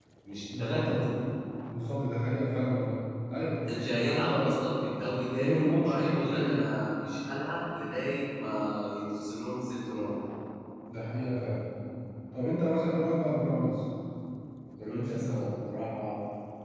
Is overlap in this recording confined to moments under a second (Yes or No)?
No